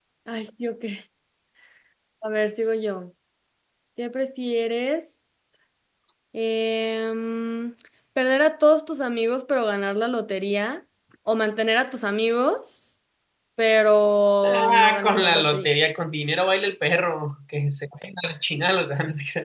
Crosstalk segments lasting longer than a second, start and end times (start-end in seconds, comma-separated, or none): 14.4-15.7